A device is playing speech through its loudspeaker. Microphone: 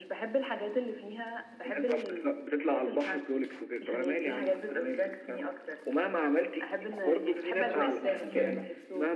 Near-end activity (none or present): present